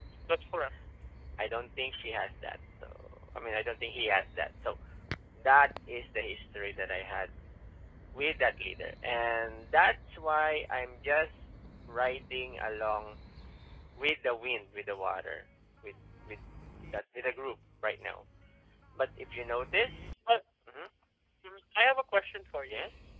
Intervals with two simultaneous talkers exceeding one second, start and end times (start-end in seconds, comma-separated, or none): none